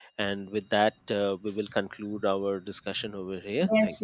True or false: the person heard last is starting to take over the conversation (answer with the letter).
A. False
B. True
B